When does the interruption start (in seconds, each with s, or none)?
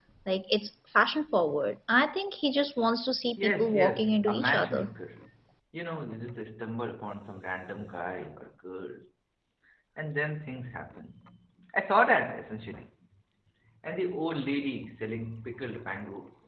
3.4 s